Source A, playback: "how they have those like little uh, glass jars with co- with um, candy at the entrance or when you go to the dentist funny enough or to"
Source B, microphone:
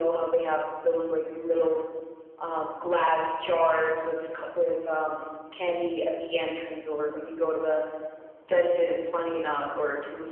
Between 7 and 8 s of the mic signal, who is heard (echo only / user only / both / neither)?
echo only